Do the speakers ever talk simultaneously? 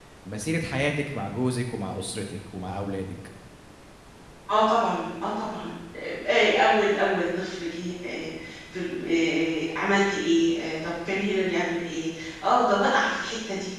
No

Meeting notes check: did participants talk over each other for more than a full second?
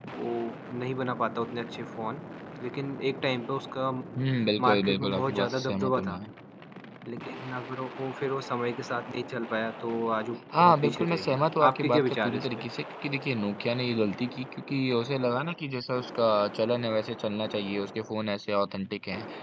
Yes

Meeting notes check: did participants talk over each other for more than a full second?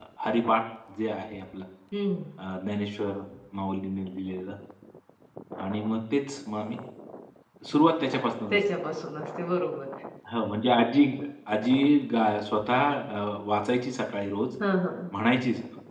No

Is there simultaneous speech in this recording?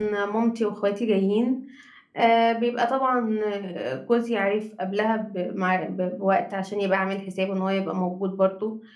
No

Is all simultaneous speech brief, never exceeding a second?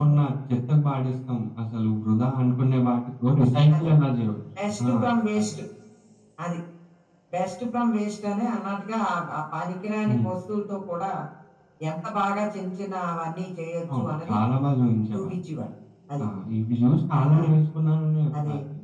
Yes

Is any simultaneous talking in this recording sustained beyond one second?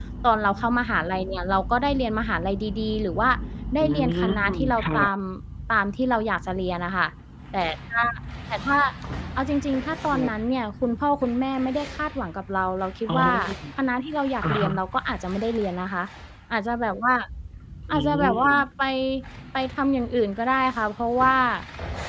Yes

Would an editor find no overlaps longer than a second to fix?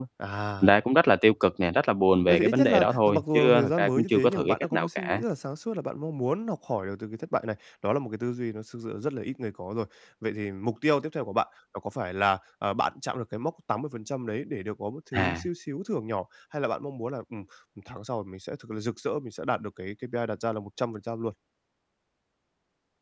No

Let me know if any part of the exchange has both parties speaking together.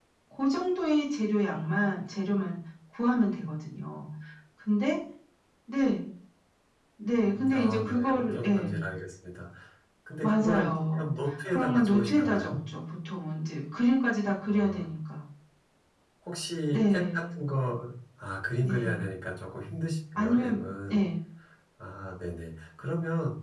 Yes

